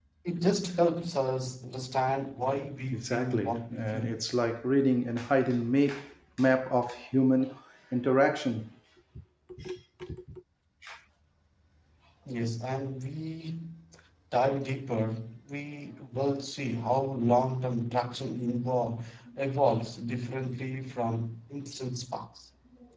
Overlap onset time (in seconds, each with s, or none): 2.9 s